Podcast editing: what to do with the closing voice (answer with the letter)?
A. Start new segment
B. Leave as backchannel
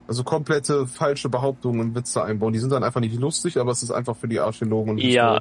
A